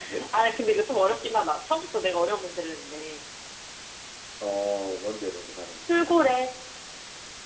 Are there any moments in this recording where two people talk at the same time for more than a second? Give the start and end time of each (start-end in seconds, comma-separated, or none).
none